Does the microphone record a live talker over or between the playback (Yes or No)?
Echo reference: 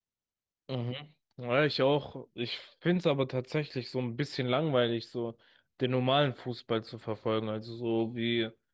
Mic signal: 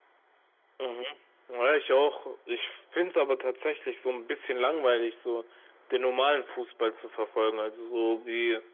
No